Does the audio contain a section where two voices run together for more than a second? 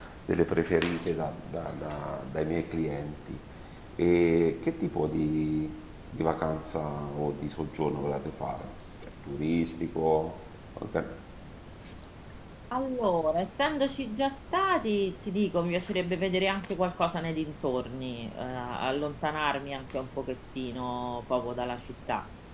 No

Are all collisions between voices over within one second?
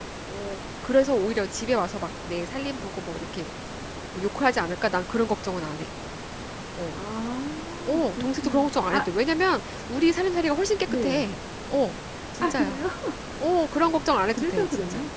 No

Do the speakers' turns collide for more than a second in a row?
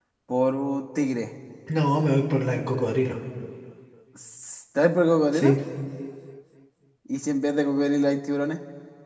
No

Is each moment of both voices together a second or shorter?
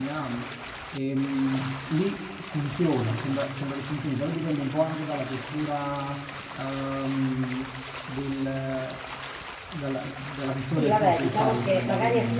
No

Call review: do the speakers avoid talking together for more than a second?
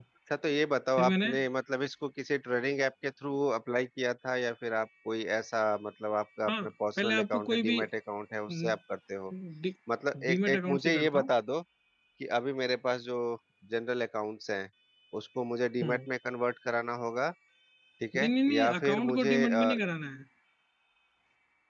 No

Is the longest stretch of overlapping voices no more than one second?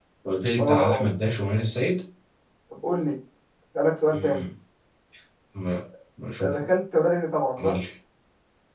Yes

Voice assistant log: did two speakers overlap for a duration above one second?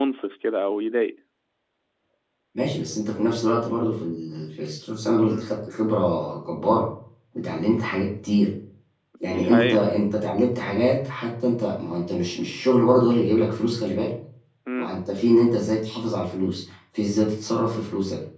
No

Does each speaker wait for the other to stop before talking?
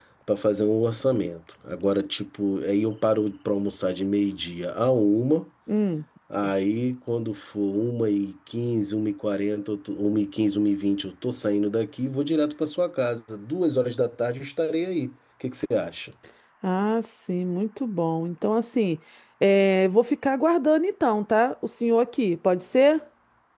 Yes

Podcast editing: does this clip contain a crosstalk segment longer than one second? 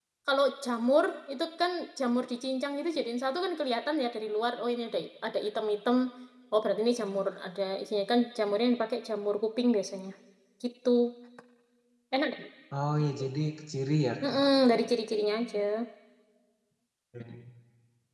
No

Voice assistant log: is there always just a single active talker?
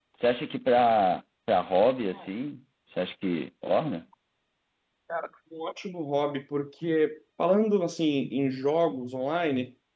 Yes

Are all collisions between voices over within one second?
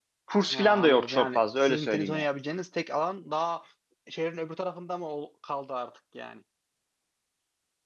No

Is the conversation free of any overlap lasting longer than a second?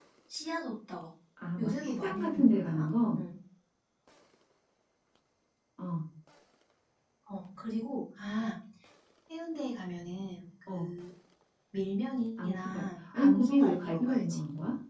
No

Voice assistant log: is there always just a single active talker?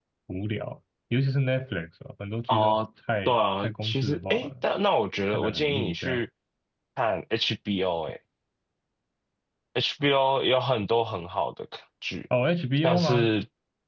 No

